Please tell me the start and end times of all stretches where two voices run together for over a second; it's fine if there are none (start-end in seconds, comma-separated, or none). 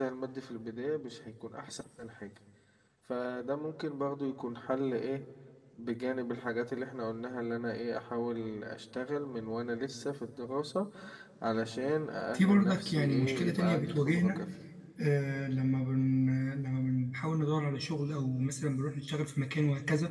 12.3-14.4